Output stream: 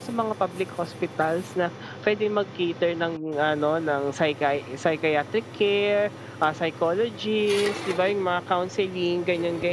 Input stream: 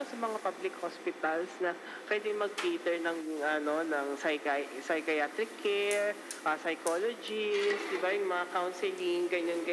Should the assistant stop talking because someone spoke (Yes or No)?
No